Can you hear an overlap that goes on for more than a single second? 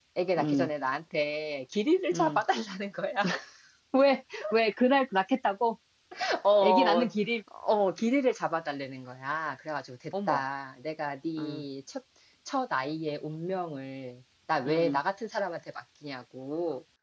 No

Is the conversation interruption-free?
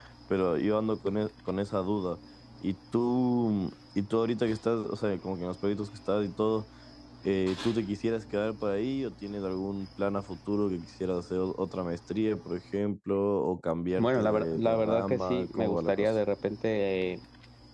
No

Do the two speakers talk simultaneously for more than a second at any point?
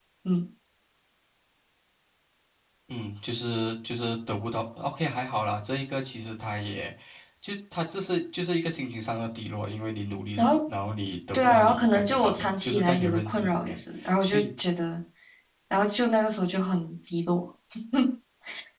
Yes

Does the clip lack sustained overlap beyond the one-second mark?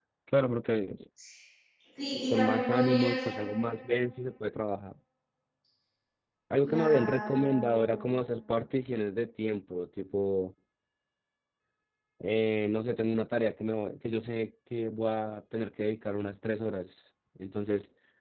No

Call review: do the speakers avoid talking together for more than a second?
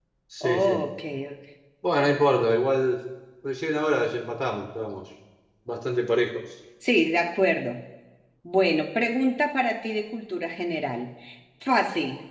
Yes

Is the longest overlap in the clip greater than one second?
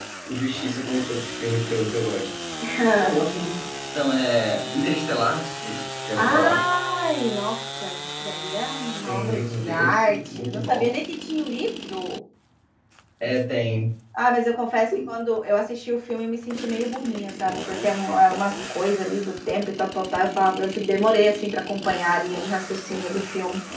Yes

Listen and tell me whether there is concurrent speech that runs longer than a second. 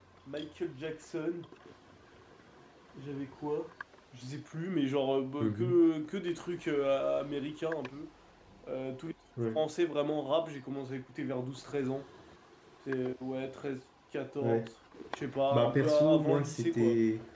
Yes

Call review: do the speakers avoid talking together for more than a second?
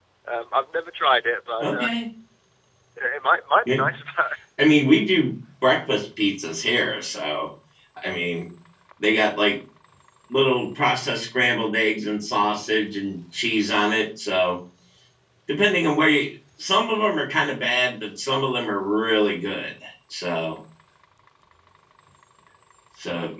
Yes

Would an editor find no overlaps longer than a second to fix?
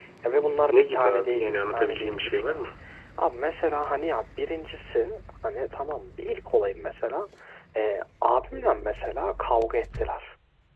No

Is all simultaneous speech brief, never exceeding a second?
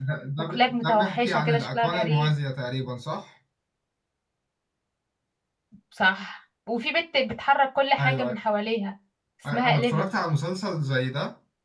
No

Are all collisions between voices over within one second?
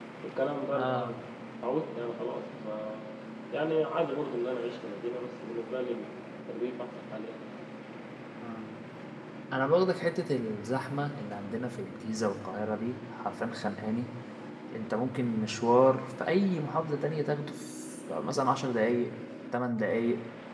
Yes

